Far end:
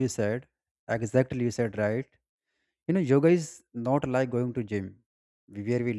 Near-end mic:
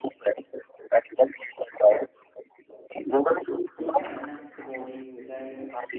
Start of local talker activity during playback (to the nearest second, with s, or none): 4 s